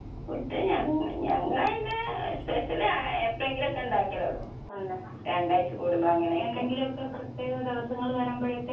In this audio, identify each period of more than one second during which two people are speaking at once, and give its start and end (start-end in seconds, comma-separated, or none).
none